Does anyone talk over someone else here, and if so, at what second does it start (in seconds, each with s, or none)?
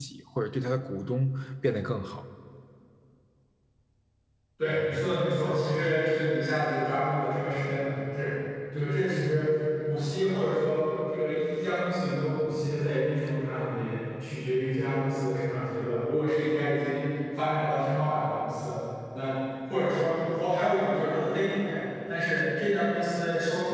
none